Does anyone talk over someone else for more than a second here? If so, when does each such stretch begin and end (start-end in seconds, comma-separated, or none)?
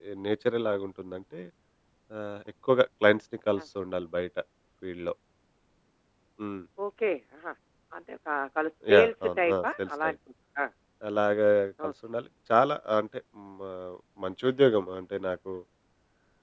8.9-10.1